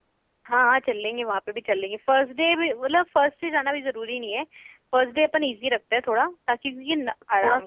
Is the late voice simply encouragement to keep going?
Yes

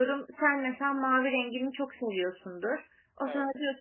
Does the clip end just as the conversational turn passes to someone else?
No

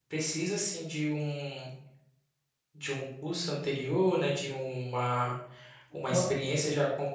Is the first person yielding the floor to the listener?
No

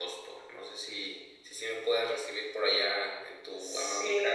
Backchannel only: No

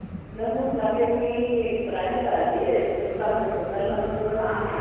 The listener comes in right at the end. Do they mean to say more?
Yes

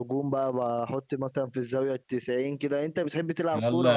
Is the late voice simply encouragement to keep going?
No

